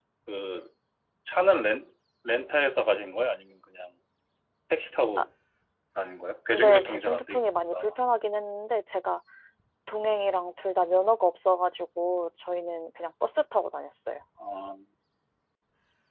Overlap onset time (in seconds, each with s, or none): 6.5 s